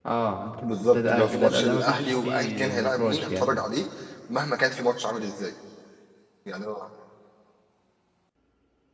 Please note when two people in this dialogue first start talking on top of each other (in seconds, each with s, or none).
0.6 s